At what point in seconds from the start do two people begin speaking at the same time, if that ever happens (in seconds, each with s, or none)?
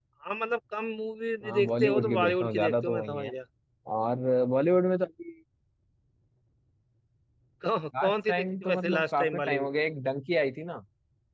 1.4 s